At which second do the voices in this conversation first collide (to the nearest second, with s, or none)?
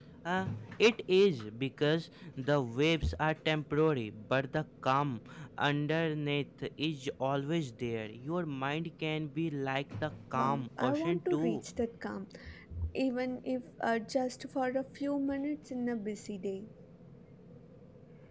10 s